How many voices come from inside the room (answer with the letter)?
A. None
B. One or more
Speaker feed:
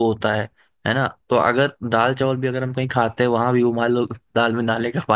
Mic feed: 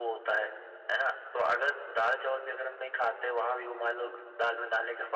A